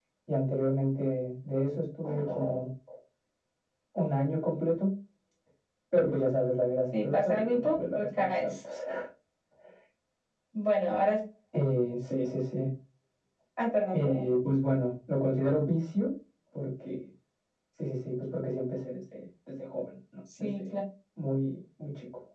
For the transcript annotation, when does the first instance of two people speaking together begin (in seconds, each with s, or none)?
6.9 s